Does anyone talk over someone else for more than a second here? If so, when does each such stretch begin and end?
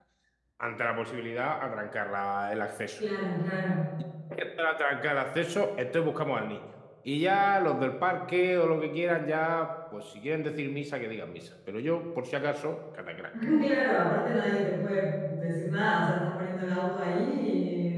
none

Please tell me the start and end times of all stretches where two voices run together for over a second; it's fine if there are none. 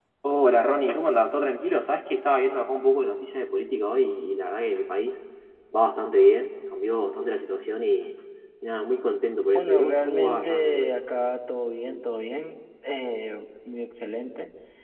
9.5-10.9

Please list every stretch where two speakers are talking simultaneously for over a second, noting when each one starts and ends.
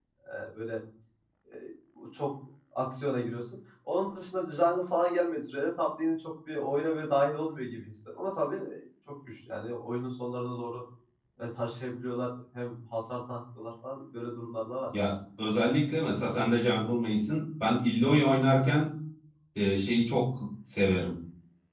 none

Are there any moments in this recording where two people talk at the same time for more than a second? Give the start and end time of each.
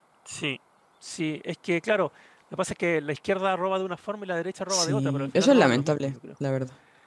4.7-6.2

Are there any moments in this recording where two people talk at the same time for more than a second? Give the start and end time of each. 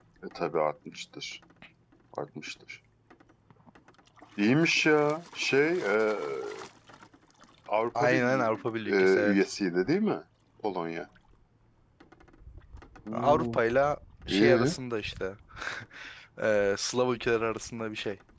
8.0-9.4

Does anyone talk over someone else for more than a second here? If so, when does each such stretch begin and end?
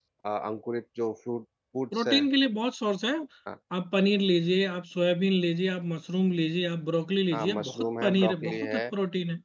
7.3-8.8

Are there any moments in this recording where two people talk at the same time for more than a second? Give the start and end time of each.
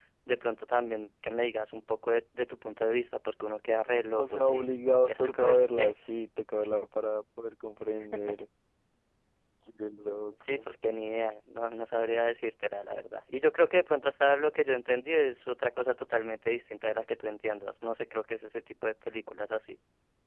4.2-5.9

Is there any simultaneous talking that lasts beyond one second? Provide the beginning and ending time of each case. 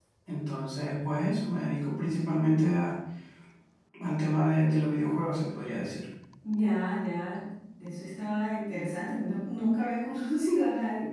none

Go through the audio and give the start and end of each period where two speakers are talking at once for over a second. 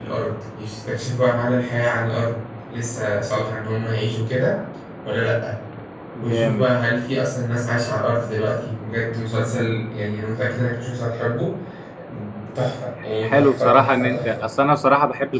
13.2-14.4

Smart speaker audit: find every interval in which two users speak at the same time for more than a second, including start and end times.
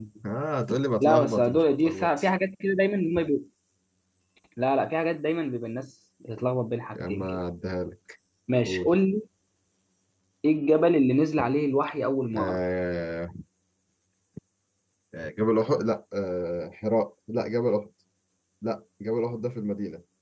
1.0-2.2

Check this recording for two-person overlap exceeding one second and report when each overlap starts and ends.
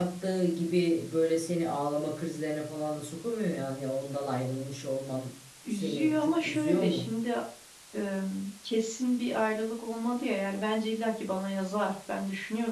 5.7-7.1

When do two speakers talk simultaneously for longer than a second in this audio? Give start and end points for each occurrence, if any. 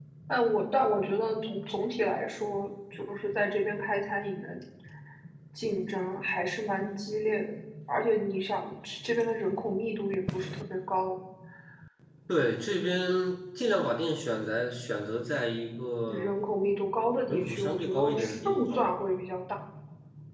17.3-18.9

